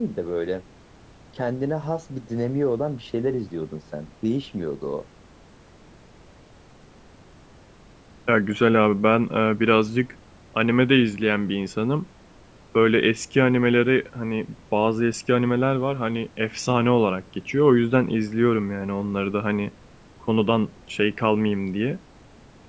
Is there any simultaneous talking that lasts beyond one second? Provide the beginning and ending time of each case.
none

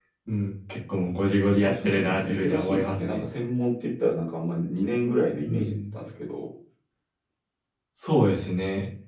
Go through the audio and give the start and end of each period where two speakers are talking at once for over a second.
1.4-3.3

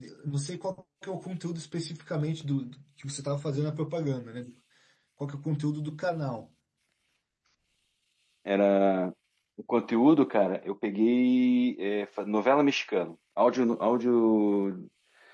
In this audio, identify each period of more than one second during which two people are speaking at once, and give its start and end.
none

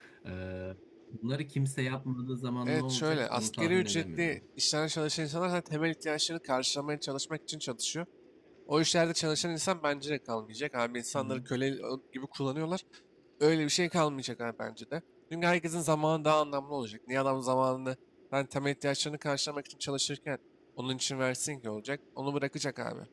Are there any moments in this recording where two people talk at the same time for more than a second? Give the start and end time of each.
2.6-4.4

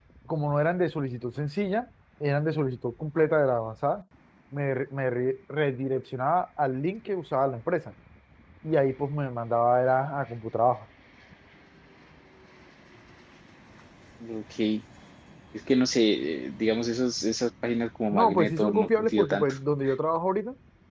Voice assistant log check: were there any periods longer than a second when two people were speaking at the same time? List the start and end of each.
18.1-19.5

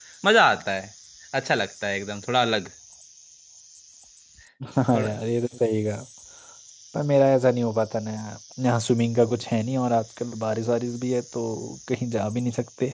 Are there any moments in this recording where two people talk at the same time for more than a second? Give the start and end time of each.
none

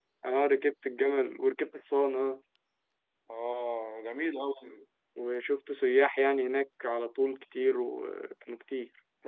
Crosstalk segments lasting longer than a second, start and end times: none

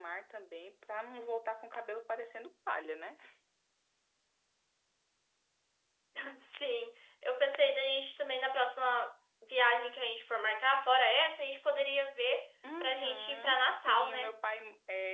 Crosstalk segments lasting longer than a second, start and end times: 12.8-14.3

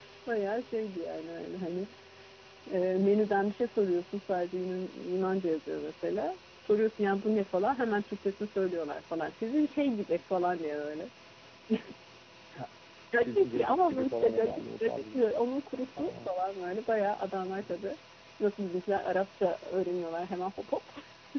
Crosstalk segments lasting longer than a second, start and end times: 13.2-15.3

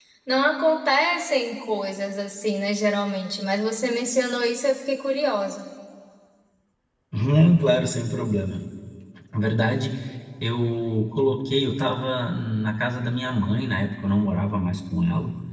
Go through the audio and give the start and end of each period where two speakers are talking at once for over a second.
none

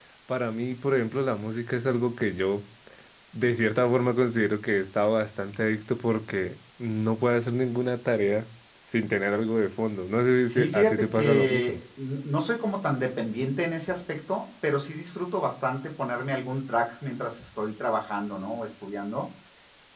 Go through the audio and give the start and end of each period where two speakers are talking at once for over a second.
10.5-11.8

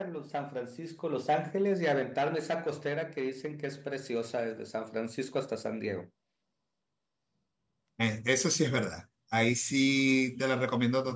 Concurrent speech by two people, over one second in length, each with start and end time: none

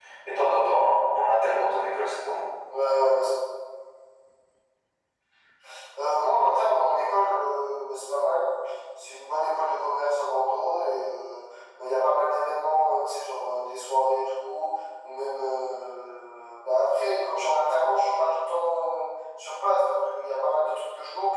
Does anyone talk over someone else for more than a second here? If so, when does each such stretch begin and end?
none

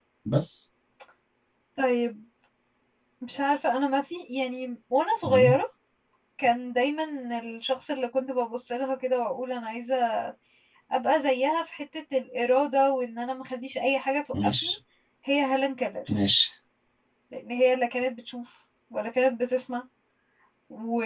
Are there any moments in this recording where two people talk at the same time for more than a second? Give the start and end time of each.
none

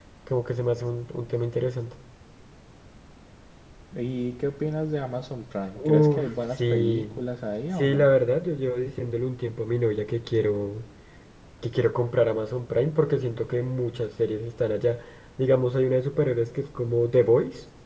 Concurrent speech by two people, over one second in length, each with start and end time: 5.8-7.2

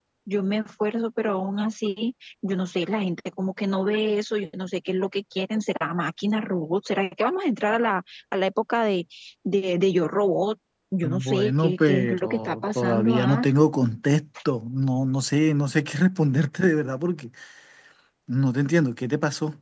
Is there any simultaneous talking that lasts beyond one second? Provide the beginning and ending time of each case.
11.0-13.5

